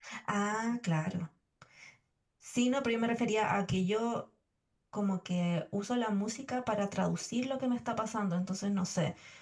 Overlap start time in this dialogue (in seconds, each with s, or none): none